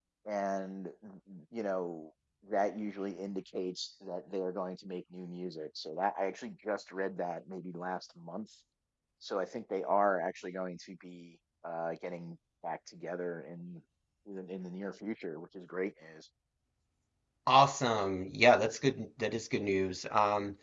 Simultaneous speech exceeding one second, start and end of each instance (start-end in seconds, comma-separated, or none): none